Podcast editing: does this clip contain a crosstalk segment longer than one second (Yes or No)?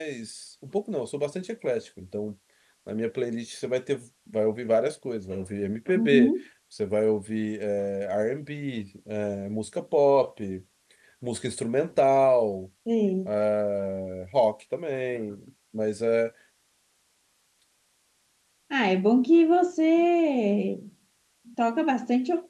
No